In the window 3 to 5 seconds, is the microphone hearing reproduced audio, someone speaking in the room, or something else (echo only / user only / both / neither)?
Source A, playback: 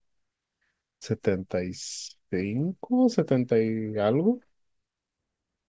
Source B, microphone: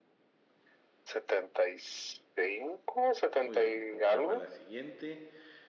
both